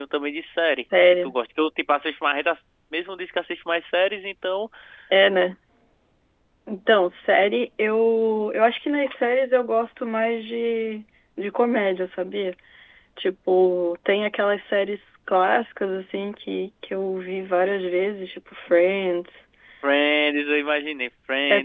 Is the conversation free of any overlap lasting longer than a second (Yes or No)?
Yes